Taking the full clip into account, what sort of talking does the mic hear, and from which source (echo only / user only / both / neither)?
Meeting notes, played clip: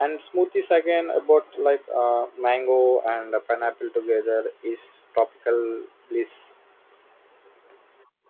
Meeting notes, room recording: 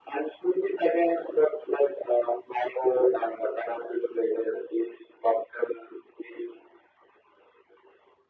echo only